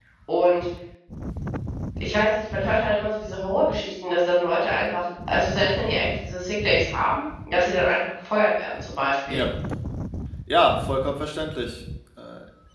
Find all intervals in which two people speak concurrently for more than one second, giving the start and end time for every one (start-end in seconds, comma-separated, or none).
none